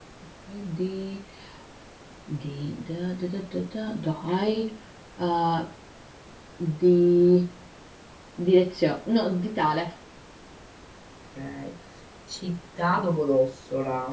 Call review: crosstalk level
none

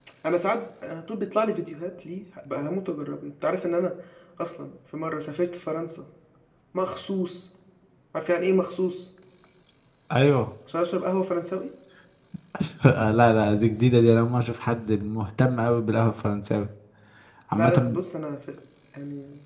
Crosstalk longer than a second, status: none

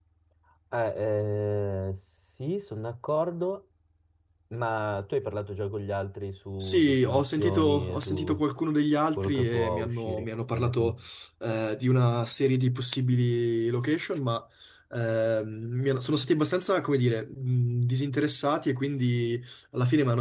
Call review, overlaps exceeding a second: present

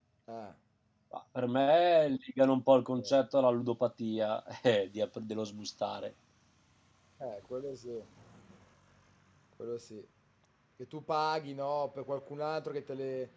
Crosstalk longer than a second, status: none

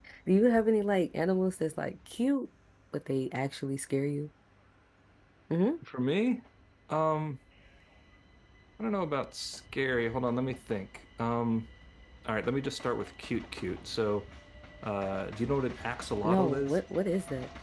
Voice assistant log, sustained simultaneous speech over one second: none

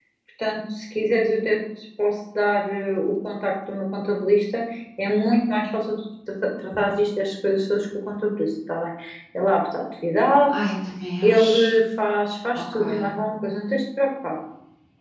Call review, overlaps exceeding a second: none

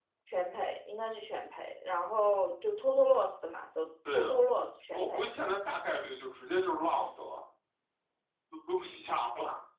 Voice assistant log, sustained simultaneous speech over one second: none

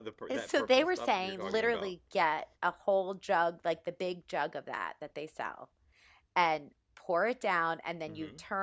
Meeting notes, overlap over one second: present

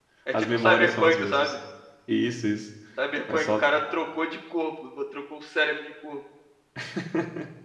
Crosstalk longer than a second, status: present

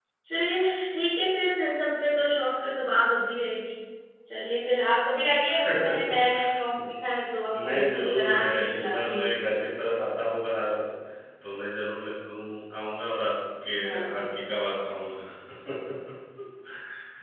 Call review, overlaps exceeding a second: present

